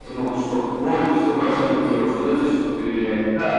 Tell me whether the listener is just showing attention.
No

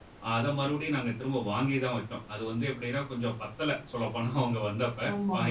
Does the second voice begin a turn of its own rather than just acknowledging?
Yes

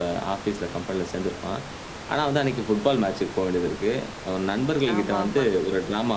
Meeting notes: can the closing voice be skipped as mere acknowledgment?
Yes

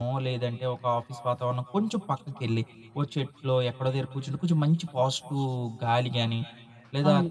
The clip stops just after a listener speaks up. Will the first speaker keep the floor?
Yes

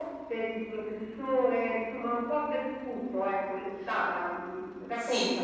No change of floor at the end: No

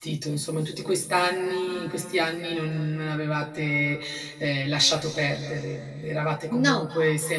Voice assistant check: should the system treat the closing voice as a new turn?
No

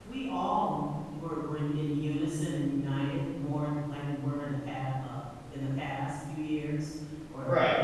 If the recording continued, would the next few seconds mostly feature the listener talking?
No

